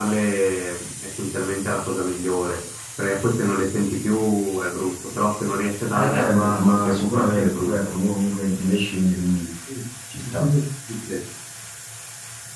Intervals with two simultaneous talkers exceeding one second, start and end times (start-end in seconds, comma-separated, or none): 5.9-7.8